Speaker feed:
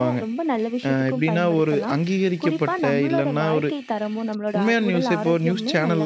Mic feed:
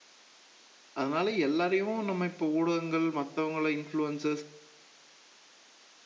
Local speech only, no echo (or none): அதனால எல்லாரையும் நம்ம இப்போ ஊடகங்கள், மத்தவங்கள இன்ஃப்ளூயன்சர்ஸ்